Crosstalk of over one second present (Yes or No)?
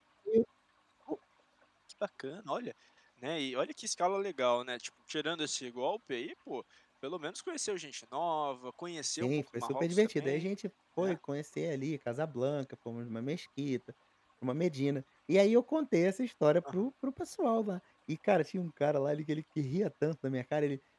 Yes